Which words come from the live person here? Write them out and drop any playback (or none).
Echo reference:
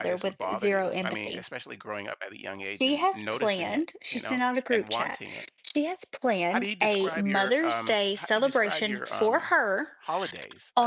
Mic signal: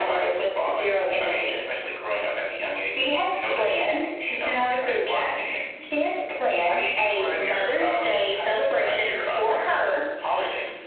none